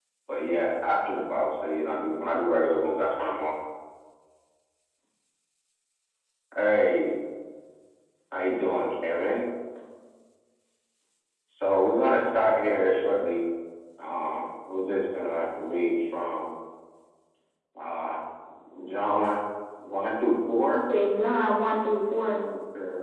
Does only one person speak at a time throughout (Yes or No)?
Yes